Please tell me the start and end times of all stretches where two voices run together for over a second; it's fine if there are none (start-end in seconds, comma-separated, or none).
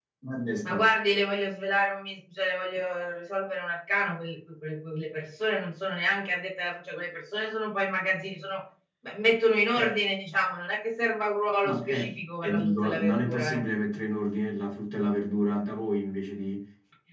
11.6-13.6